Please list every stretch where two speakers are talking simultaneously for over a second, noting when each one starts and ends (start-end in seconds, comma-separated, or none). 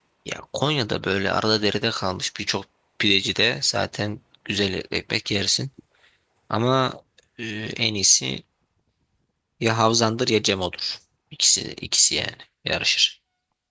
none